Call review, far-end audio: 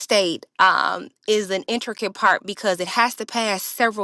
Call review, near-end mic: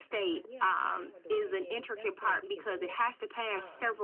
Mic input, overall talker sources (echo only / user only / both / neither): both